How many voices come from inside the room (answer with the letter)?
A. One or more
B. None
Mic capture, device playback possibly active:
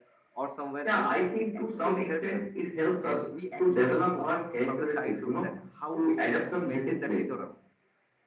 A